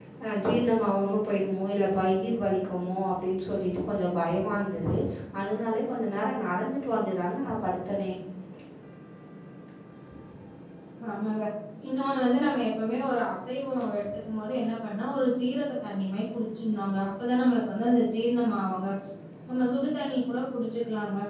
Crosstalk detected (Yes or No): No